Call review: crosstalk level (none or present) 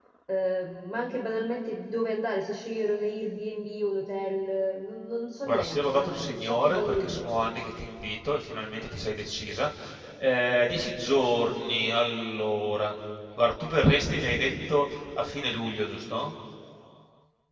present